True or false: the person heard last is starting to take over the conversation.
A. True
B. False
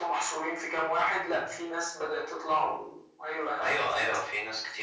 A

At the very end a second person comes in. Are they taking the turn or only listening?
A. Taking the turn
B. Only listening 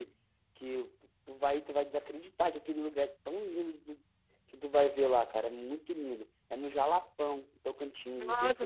A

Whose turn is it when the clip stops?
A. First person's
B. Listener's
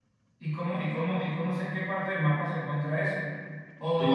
B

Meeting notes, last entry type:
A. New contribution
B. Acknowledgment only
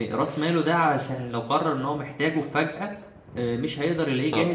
A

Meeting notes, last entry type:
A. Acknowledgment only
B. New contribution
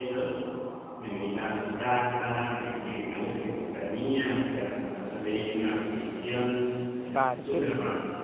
B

